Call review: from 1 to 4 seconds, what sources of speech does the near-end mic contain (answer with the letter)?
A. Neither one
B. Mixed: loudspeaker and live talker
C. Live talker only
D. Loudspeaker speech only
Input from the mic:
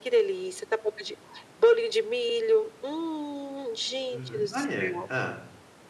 D